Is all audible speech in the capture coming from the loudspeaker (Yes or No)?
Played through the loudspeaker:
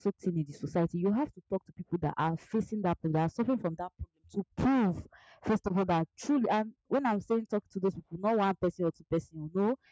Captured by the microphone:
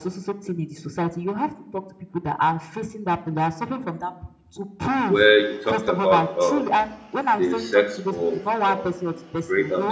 No